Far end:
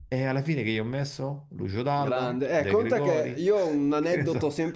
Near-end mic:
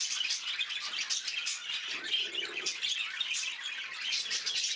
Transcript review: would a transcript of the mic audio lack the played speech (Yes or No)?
Yes